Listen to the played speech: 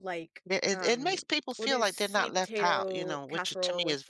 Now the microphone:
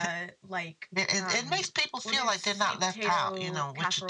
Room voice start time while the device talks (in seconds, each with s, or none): none